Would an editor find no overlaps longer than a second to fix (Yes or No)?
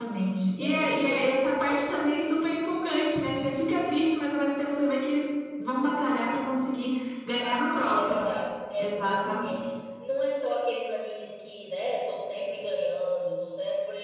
No